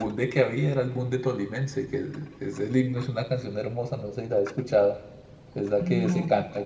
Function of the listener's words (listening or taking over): listening